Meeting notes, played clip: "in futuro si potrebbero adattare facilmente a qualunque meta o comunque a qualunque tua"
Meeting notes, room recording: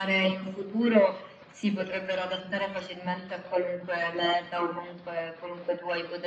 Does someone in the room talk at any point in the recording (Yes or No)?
No